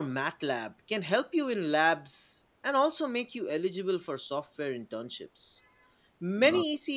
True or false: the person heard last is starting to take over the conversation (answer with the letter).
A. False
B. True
A